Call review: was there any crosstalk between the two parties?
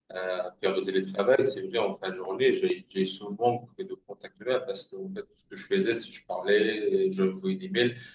No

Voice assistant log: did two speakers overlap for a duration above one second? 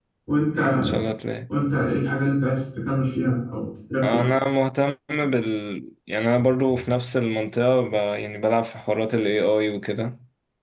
No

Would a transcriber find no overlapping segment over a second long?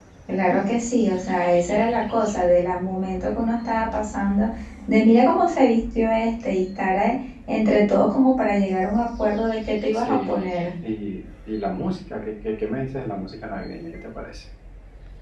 Yes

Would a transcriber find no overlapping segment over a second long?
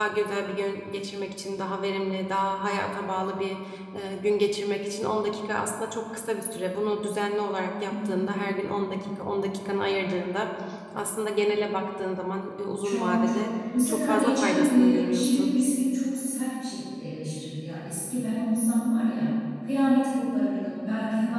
No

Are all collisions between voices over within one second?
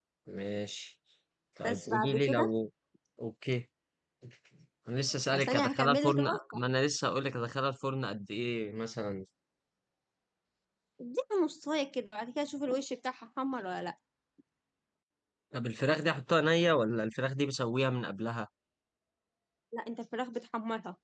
No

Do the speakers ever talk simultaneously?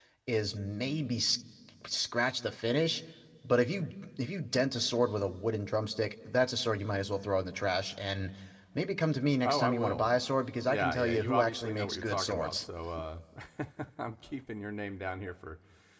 Yes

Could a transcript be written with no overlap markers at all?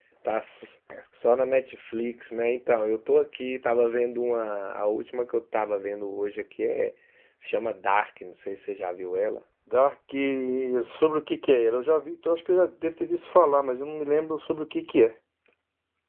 Yes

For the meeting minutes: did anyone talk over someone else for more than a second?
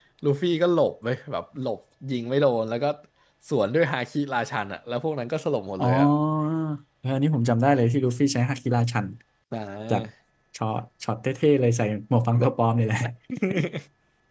No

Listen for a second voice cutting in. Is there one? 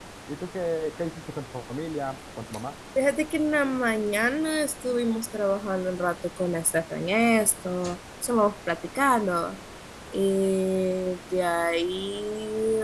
No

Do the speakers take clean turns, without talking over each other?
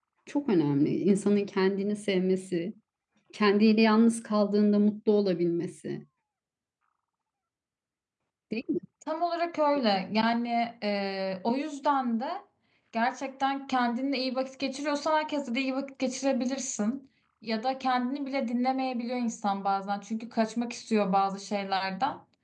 Yes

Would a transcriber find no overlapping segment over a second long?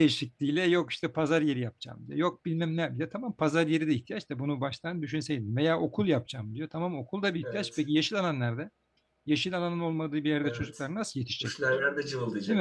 Yes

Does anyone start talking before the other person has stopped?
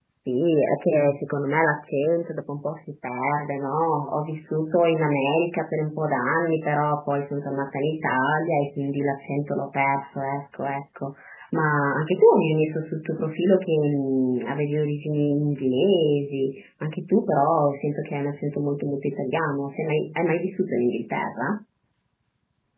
No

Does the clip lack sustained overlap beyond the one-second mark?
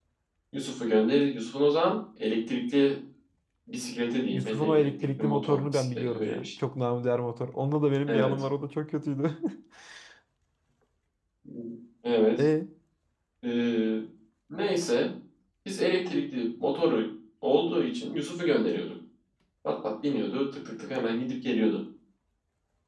No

